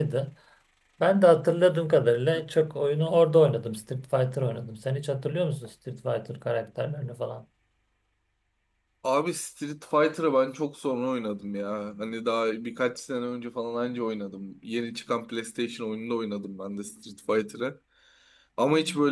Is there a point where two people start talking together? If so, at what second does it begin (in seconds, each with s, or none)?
none